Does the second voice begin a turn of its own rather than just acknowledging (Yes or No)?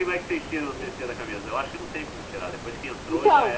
Yes